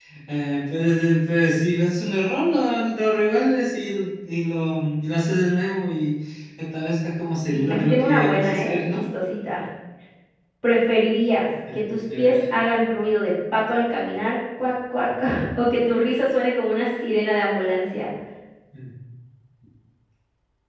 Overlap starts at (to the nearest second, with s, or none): 7 s